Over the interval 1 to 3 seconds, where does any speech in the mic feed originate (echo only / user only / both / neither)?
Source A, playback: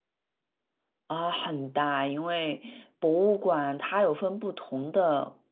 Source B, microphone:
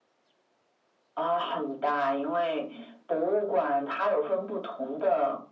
echo only